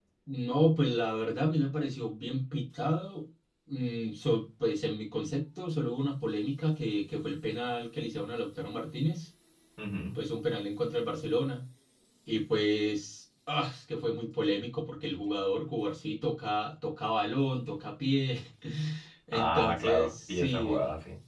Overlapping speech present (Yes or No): Yes